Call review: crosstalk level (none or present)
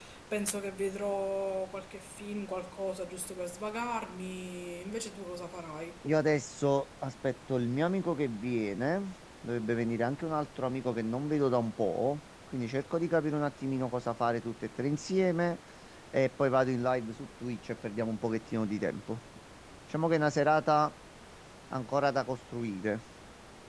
none